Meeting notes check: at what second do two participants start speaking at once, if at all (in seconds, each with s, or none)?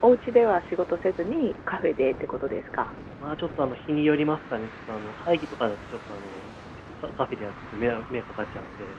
none